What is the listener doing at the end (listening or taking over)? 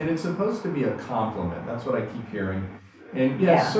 listening